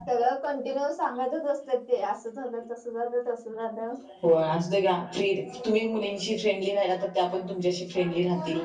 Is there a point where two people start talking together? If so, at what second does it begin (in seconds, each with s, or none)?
none